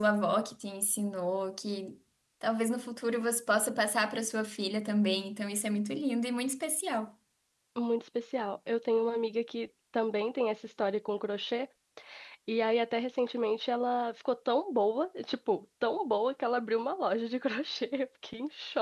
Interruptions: none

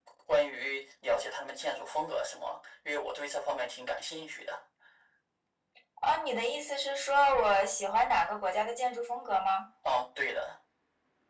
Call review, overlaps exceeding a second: none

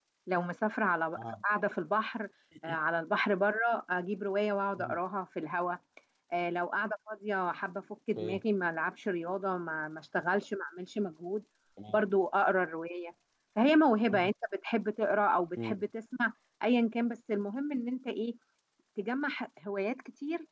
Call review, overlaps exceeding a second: none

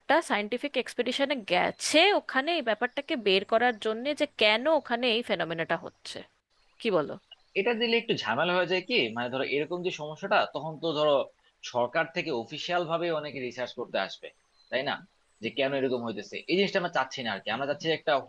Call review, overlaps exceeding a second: none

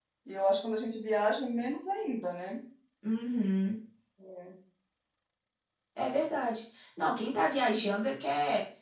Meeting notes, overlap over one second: none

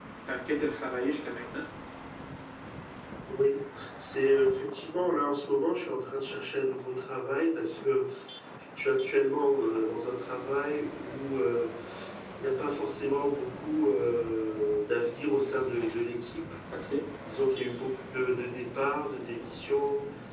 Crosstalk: none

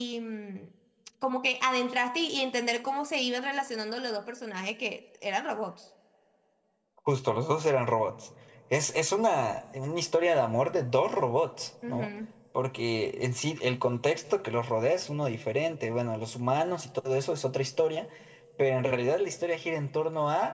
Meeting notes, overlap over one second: none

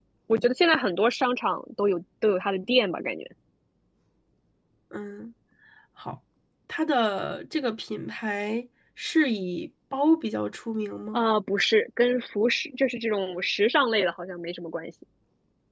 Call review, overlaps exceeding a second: none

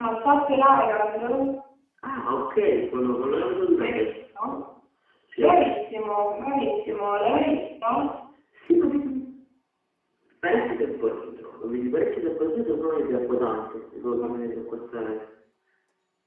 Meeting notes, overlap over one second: none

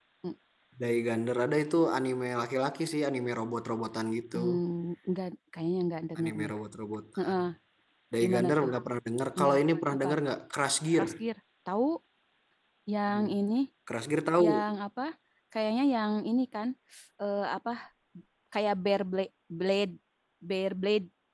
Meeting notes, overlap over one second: none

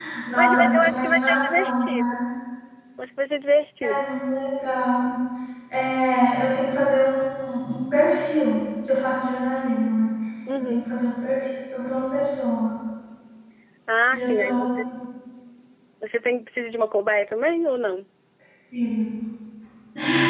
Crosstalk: present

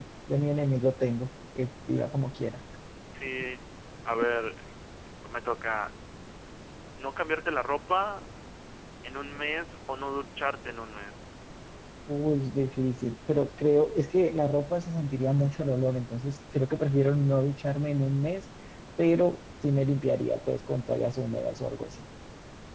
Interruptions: none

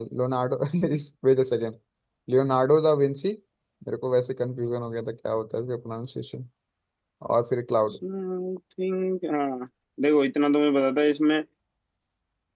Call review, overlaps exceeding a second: none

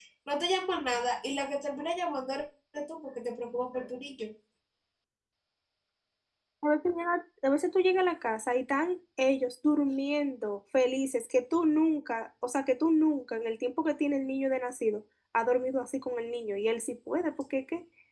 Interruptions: none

